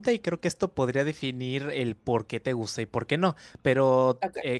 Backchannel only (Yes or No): Yes